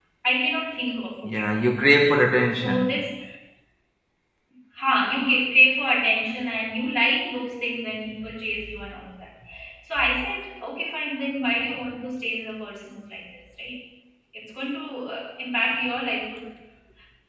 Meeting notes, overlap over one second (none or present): none